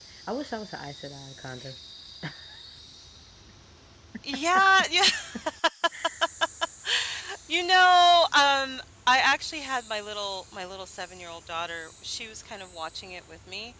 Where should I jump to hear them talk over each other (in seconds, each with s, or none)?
none